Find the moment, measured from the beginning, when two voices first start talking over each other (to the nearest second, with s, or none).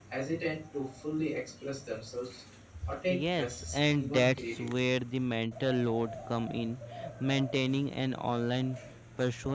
3 s